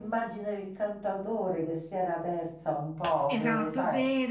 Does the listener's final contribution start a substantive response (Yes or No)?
Yes